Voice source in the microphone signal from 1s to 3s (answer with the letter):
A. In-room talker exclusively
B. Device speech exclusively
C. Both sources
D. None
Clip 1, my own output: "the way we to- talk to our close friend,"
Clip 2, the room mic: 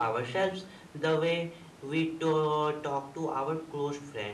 B